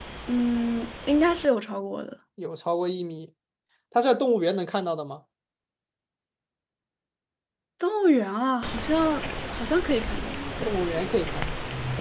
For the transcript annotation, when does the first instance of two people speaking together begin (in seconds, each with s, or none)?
none